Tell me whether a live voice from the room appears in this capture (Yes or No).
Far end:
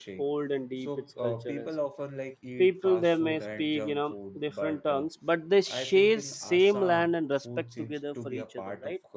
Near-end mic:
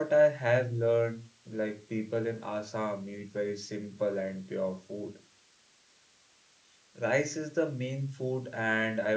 Yes